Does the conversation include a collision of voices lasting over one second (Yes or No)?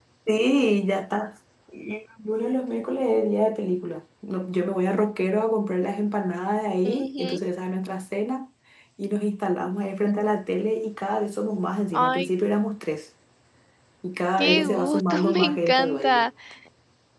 Yes